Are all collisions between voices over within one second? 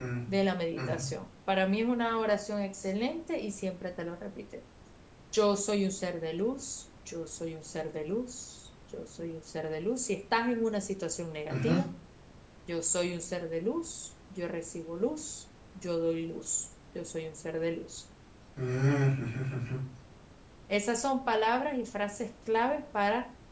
Yes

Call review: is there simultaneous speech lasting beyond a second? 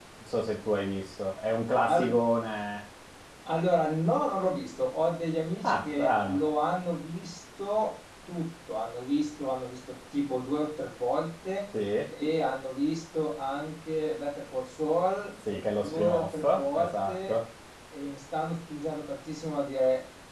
Yes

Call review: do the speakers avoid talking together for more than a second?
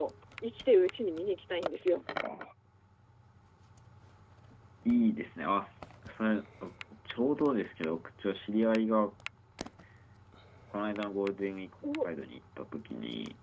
Yes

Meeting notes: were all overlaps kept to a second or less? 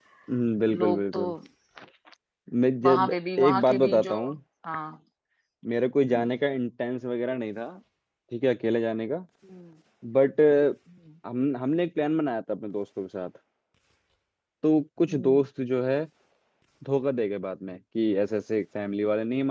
No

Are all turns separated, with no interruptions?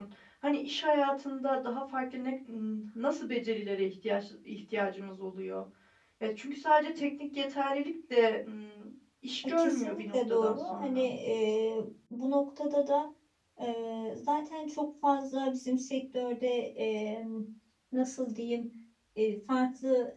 No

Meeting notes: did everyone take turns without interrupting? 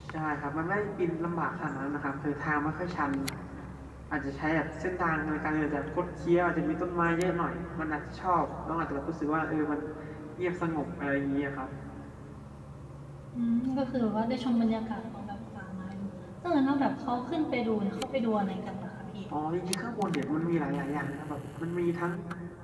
Yes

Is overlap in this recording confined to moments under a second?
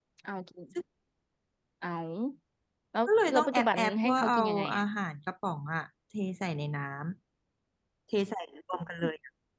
No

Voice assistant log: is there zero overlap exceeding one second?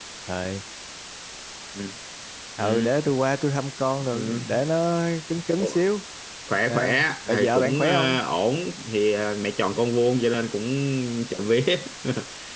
No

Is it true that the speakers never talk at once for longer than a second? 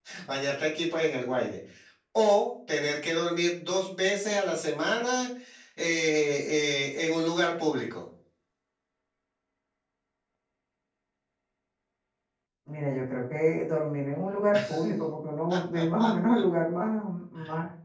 Yes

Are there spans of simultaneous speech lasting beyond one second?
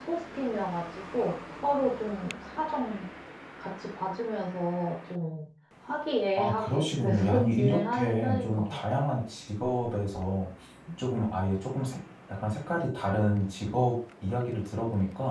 Yes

